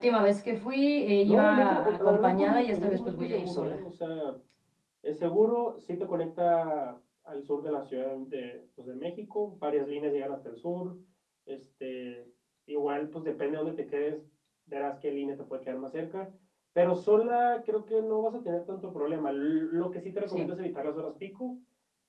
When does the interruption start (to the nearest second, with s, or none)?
1 s